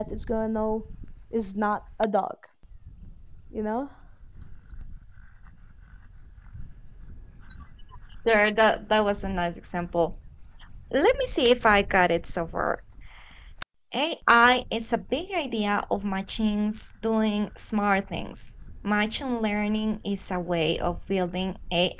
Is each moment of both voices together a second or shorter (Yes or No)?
Yes